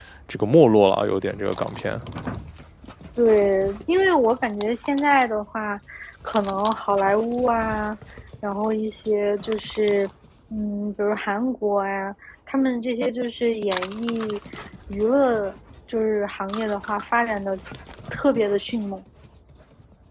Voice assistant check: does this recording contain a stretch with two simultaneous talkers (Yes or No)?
No